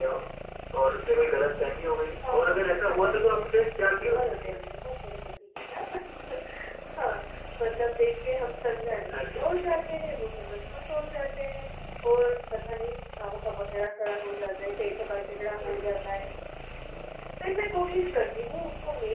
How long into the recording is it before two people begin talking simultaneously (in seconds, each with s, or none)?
2.3 s